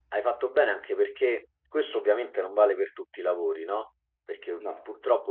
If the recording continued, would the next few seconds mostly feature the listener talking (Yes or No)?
No